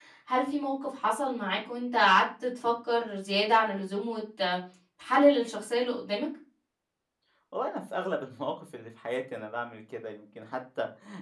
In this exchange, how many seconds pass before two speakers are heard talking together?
none

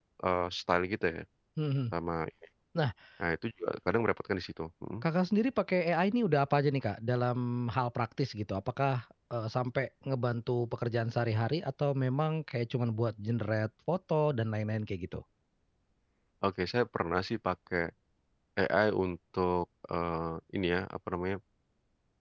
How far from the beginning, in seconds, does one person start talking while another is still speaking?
none

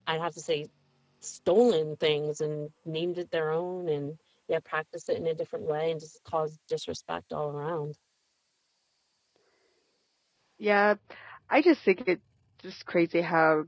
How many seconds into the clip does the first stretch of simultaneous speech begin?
none

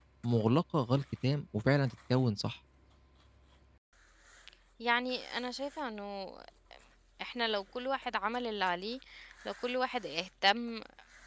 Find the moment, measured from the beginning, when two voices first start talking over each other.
none

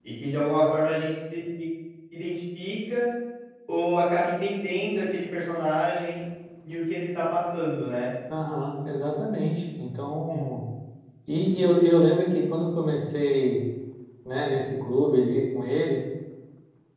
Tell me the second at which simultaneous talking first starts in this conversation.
none

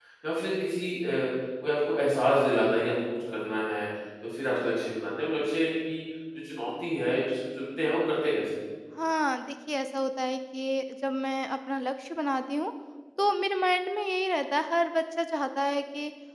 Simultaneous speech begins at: none

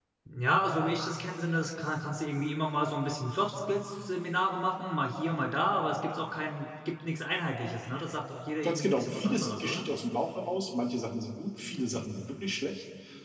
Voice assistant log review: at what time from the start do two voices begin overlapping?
8.6 s

